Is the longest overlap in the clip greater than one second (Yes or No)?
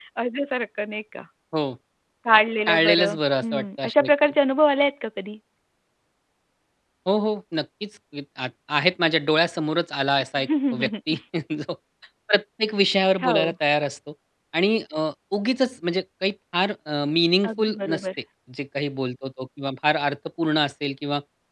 Yes